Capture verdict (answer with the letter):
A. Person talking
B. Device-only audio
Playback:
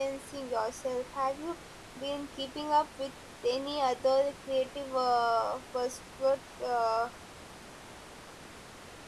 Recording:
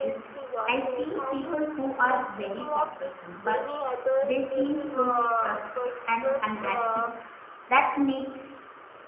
A